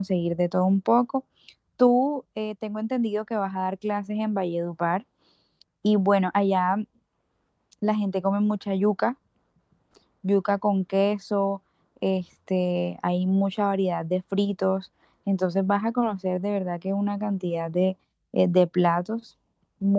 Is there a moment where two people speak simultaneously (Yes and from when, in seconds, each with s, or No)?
No